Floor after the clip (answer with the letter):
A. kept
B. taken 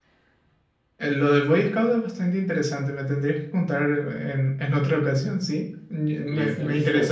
A